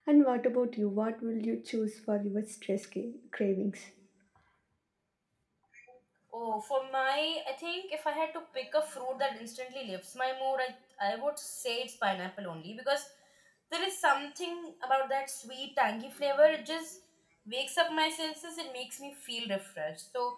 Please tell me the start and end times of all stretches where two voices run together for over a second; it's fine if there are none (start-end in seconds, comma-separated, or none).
none